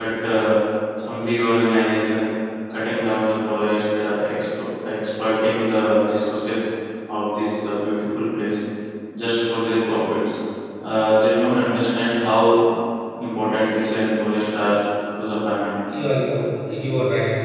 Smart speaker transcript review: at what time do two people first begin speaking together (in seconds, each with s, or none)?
none